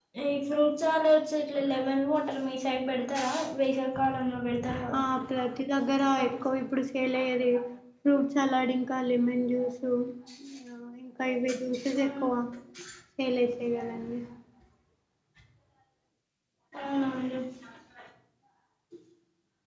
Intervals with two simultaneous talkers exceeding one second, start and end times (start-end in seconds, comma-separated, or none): none